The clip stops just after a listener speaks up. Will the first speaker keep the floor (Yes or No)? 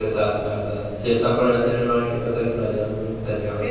No